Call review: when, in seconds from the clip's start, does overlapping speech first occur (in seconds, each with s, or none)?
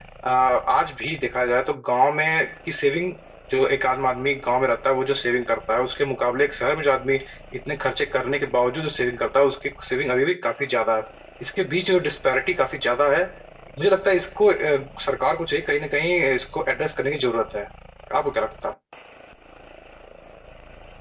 none